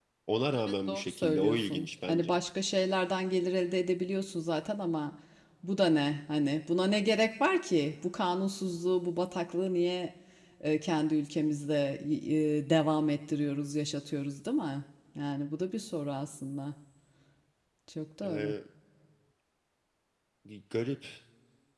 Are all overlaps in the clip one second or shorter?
No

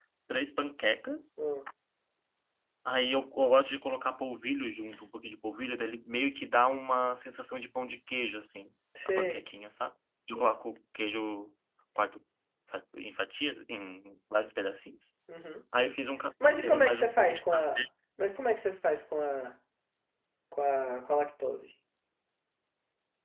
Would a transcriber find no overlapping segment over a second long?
No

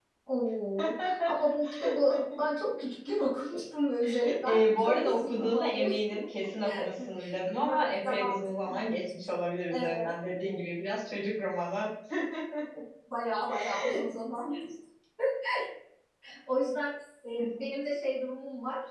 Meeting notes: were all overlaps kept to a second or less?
No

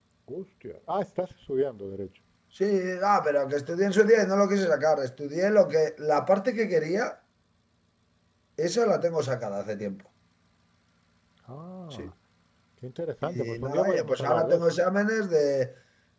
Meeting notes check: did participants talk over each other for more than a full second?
Yes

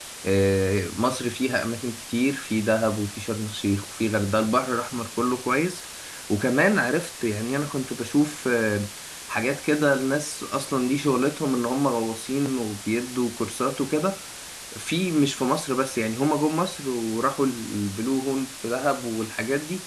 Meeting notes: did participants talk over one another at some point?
No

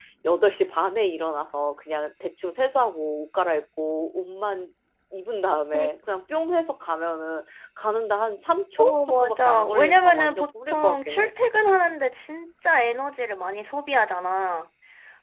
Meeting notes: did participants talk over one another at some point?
Yes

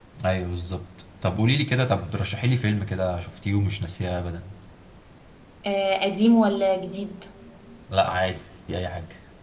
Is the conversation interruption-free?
Yes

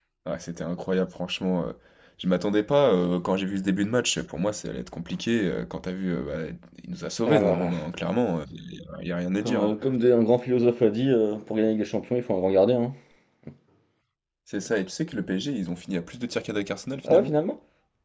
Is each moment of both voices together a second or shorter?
Yes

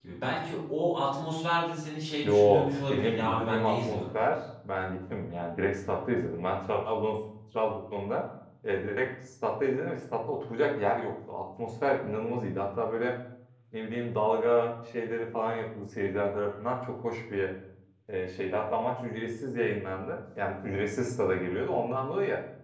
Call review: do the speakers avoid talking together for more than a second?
No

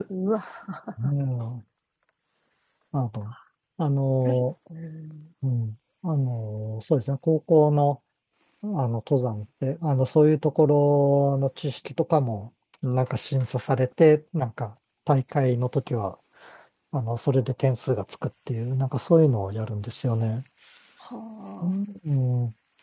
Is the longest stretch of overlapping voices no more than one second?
Yes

